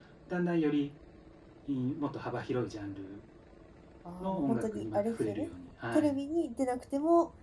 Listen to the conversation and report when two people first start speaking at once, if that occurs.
4 s

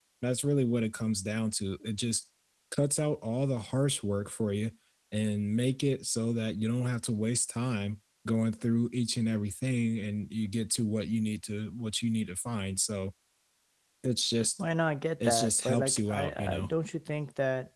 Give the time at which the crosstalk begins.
15 s

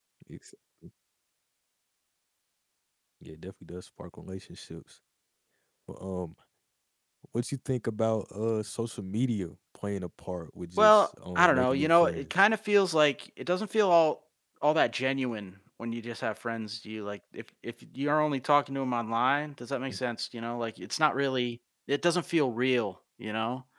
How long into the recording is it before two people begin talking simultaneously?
11 s

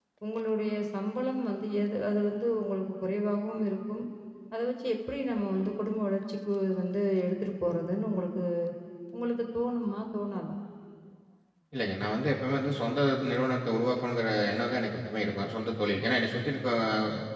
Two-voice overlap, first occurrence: none

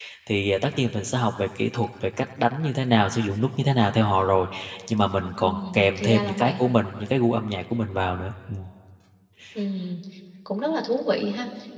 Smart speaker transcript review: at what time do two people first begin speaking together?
5 s

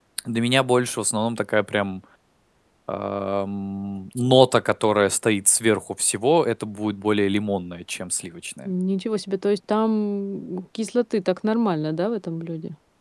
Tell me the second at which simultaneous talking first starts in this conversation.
none

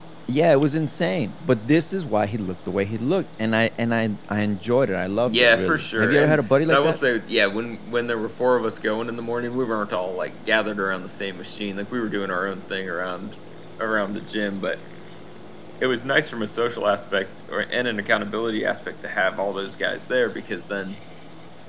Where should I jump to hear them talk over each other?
5 s

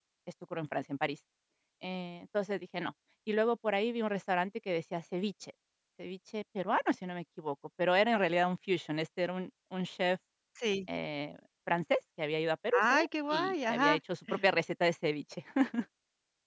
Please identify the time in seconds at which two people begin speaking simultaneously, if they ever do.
13 s

